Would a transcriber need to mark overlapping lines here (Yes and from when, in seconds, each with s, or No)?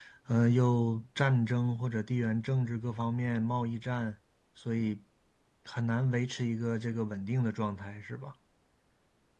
No